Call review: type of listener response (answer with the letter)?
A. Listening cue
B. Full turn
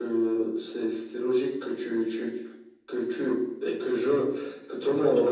A